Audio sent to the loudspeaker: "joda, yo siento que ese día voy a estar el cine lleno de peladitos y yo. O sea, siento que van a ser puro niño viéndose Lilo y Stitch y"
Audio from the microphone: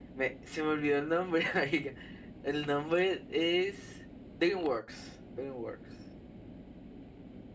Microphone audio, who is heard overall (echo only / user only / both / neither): user only